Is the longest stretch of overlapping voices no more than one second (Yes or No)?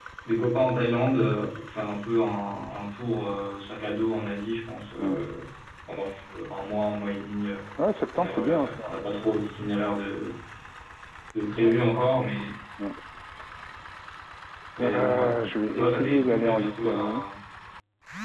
No